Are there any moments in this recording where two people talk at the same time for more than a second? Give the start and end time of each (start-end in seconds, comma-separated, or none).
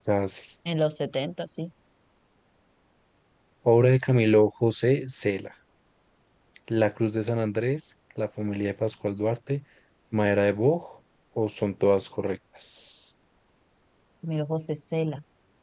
none